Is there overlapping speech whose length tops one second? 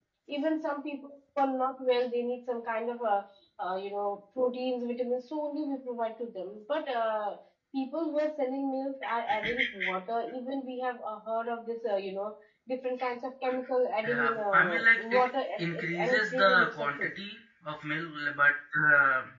Yes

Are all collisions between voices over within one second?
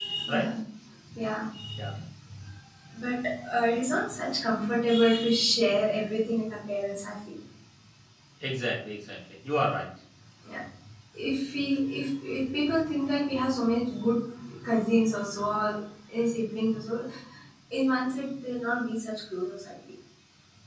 Yes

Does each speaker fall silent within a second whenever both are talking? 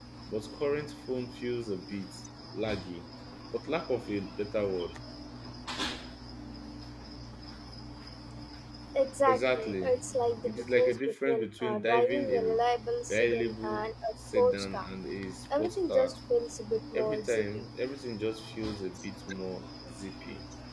No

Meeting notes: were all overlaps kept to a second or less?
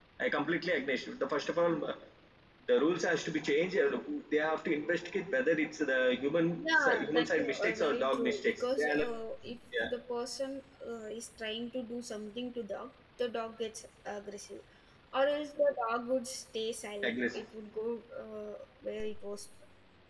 No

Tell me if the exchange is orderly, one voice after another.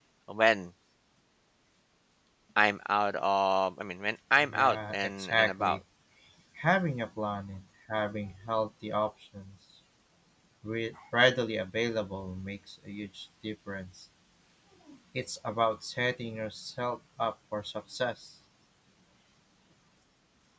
No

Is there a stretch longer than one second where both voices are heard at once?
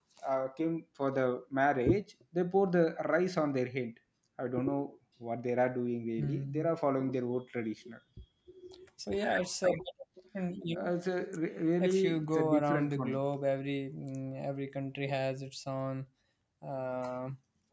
Yes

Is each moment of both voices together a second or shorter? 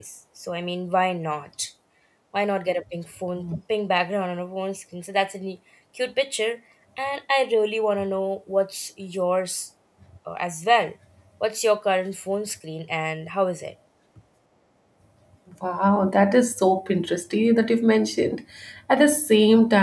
Yes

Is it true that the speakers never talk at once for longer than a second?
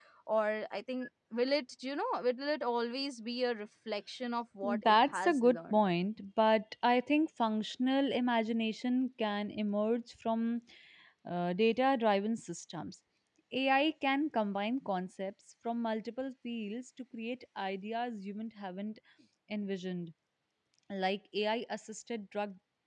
No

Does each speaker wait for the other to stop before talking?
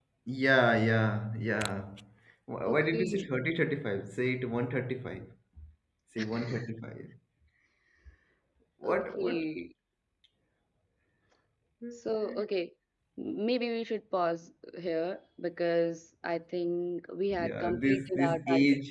No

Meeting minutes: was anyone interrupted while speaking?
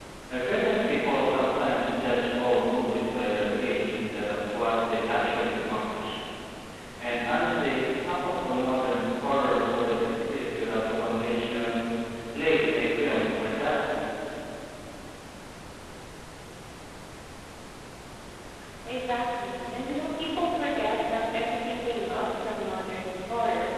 No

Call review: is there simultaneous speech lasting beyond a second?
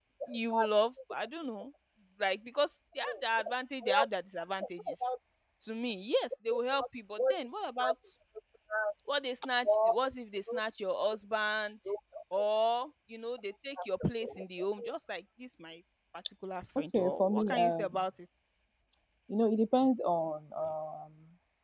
Yes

